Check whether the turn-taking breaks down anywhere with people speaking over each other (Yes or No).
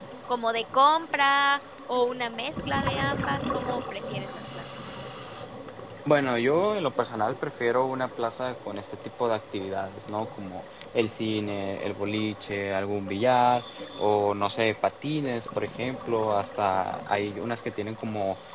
No